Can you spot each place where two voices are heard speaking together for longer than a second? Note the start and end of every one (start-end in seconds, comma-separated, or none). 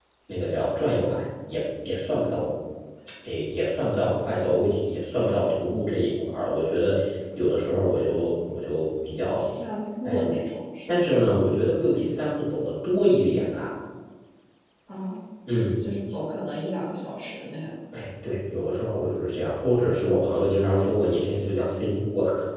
none